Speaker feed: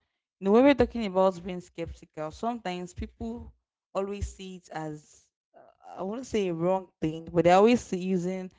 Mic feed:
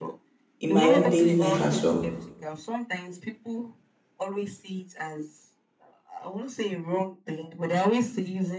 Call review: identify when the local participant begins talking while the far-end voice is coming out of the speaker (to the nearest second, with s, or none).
1 s